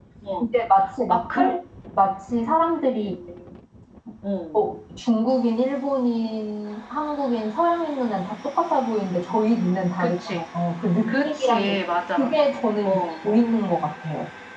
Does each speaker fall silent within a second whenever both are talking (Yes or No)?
No